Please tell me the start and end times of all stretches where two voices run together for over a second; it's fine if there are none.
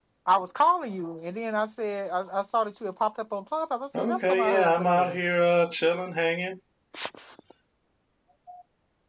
4.0-5.2

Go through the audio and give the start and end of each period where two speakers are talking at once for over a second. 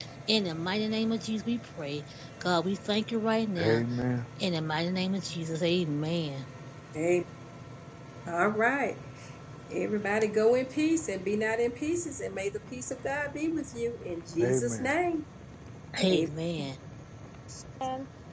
none

